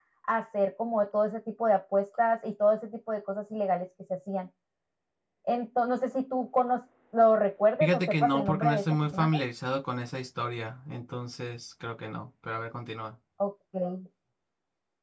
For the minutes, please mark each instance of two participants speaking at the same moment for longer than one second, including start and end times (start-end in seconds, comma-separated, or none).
7.8-9.4